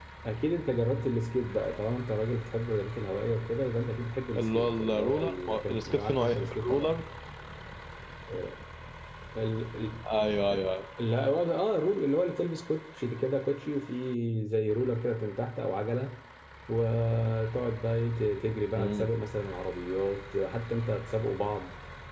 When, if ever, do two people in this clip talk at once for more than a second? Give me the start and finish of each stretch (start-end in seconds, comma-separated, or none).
4.4-6.9